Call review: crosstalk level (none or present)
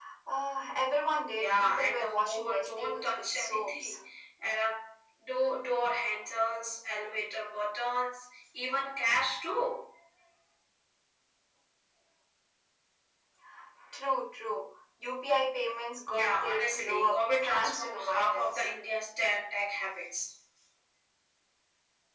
present